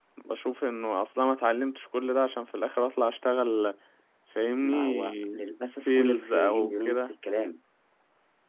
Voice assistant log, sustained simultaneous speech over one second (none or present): present